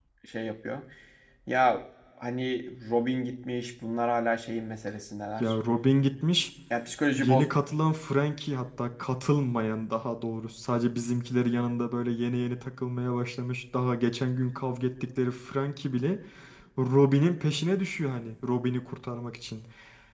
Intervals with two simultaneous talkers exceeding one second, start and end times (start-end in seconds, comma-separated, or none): none